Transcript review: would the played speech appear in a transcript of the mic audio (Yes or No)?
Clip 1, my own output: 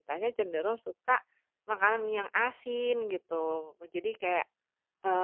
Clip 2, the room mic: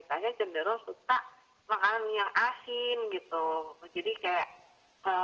Yes